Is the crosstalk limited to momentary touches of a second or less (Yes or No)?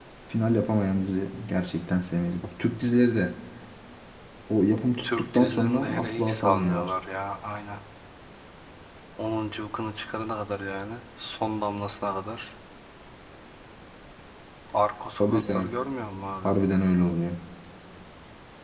No